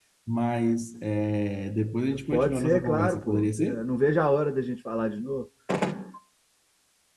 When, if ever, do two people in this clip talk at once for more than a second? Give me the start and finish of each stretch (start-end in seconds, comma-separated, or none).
2.3-3.8